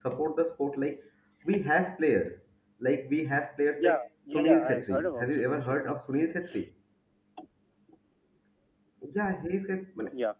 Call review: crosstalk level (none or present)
present